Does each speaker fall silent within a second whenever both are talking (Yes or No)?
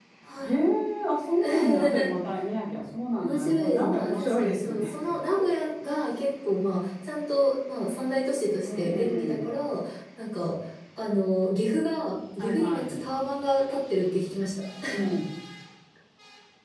No